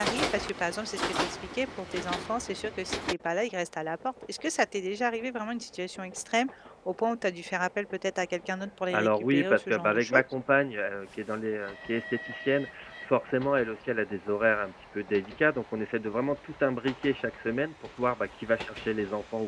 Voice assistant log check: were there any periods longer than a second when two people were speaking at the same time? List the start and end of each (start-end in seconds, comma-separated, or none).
8.9-10.2